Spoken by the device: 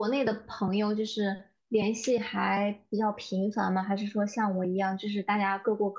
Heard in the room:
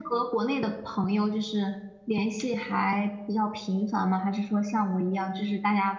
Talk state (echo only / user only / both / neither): echo only